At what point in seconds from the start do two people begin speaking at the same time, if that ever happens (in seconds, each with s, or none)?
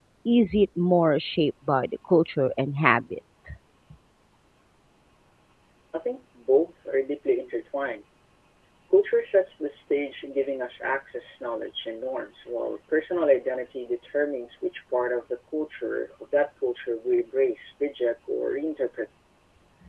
none